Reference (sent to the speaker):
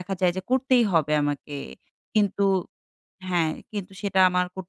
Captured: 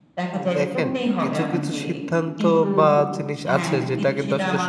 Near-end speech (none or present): present